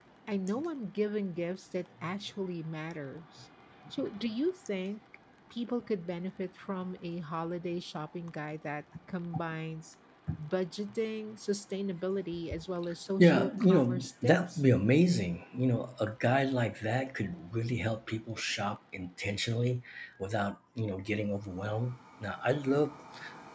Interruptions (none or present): present